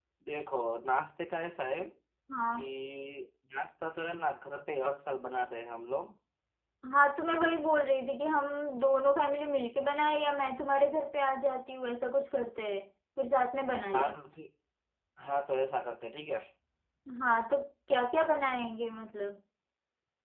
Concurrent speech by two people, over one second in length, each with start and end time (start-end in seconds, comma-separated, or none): none